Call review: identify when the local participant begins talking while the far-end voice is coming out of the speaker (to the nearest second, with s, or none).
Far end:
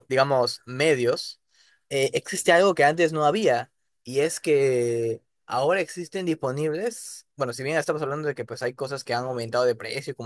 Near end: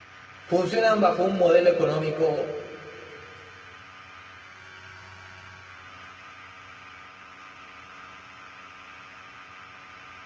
0 s